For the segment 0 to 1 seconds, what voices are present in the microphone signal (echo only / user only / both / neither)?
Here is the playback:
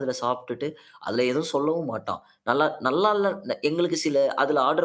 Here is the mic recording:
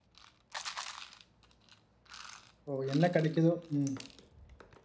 neither